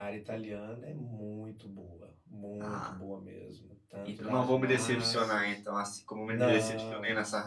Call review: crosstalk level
present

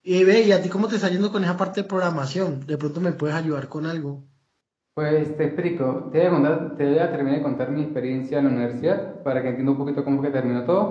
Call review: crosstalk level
none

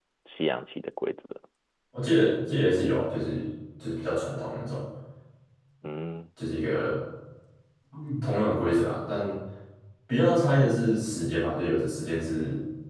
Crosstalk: none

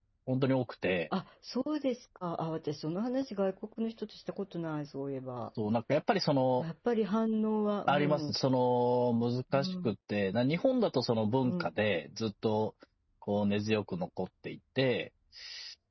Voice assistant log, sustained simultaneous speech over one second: none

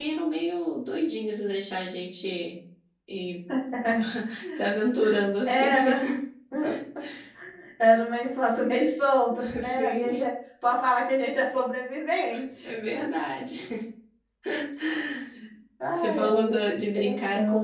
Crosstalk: present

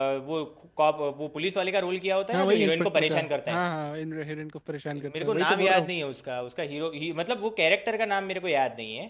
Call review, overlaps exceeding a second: present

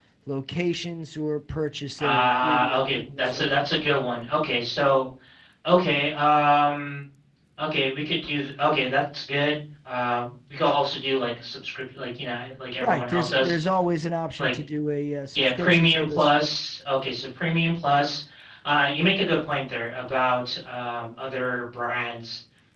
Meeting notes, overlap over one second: present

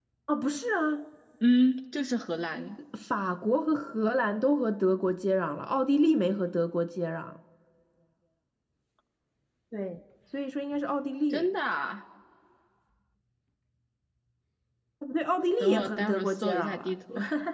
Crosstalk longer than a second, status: present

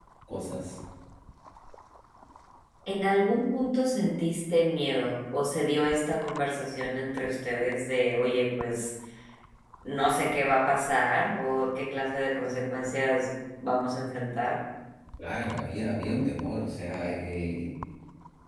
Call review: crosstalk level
none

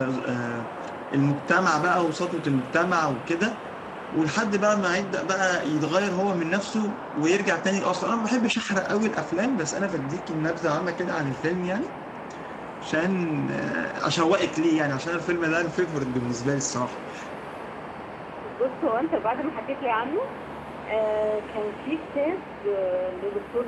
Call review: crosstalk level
none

